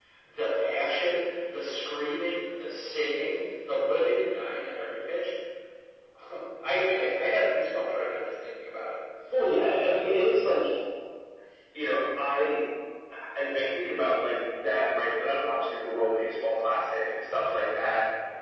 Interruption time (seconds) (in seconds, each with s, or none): none